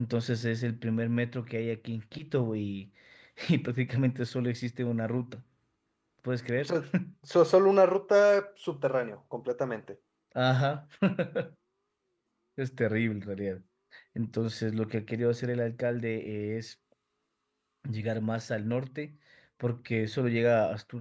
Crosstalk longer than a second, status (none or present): none